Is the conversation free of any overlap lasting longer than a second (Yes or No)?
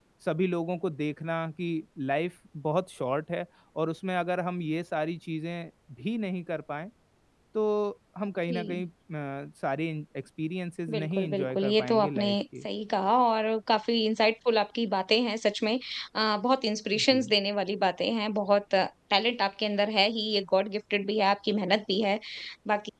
No